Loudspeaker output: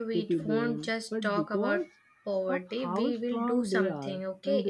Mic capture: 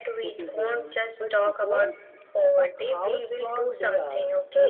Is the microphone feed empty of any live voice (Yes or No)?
Yes